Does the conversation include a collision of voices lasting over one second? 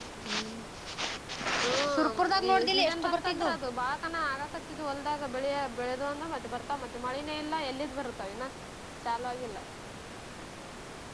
Yes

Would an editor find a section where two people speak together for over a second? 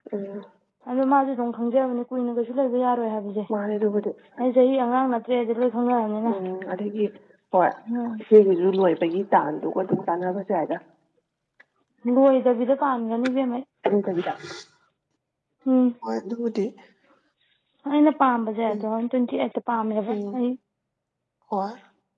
No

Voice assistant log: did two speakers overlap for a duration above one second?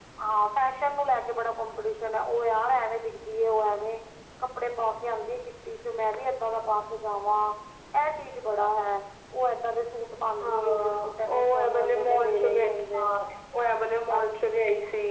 Yes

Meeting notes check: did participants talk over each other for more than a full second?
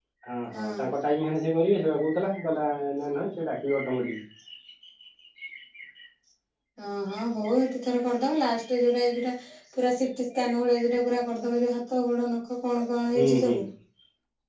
No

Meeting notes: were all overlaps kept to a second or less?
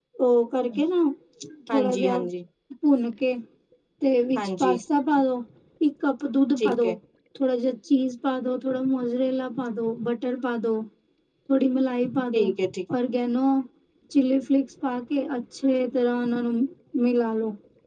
Yes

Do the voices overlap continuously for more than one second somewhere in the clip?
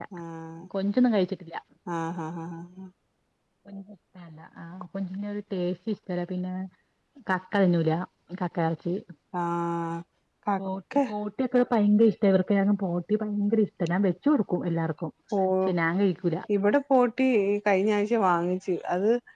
No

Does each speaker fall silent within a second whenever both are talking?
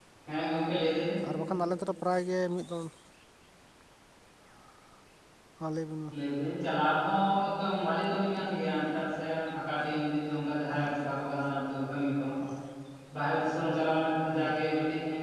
Yes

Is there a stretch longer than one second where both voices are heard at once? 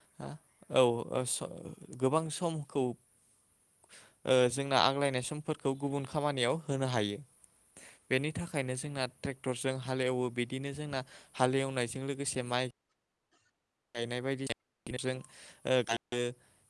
No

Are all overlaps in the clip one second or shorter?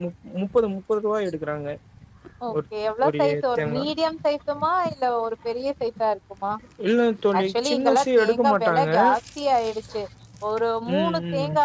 No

